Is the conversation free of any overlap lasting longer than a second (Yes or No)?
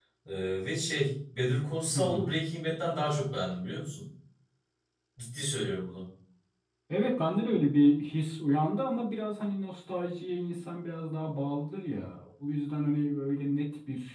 Yes